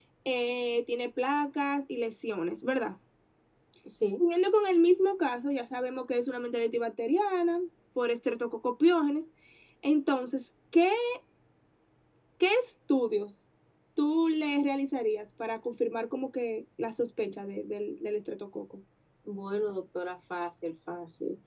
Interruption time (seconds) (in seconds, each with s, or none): none